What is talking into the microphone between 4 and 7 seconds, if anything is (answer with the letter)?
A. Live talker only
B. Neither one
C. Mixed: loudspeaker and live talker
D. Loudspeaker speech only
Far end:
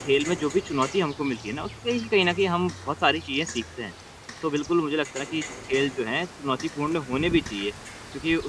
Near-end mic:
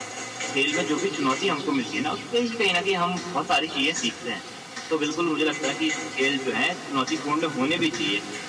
D